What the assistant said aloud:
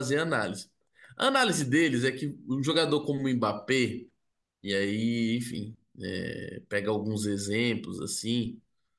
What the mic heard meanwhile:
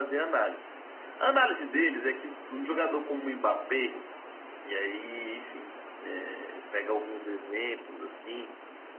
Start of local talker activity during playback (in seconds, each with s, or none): none